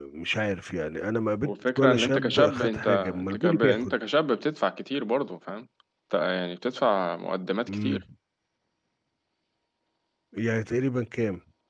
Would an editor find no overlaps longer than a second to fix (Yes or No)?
No